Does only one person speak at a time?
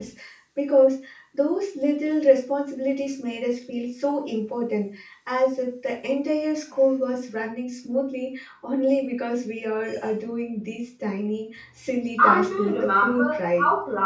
No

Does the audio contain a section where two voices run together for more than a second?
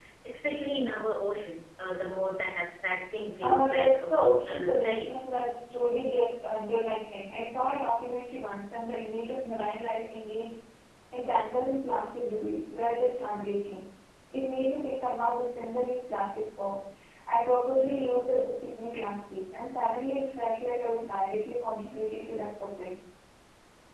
Yes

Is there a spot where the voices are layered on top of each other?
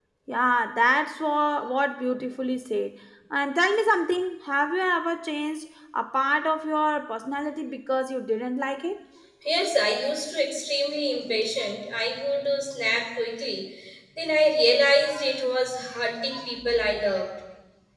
No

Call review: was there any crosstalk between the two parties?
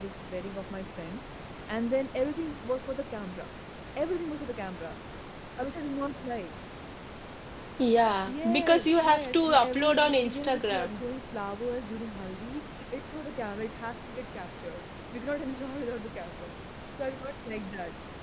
Yes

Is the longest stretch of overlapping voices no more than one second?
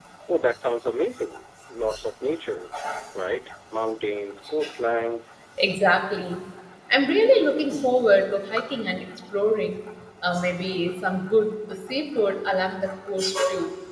Yes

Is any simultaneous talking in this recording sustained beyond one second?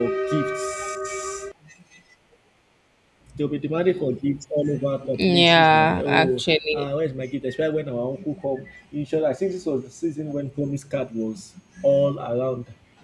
Yes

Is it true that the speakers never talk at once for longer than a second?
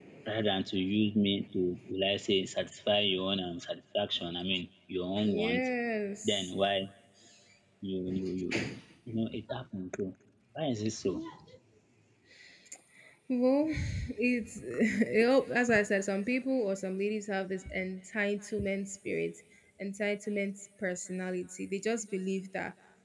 Yes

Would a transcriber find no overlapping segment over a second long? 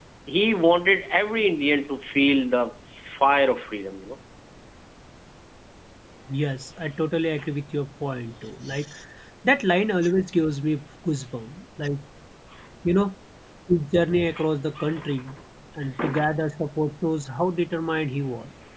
Yes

